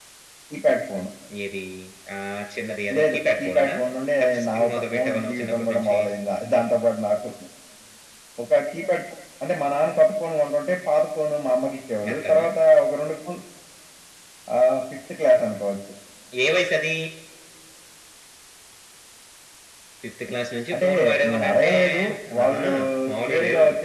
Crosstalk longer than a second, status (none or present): present